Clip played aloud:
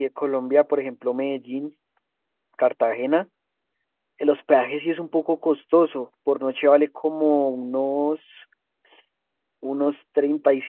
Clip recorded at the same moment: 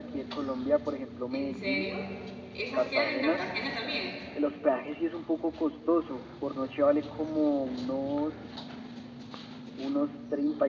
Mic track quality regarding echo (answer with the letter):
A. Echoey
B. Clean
A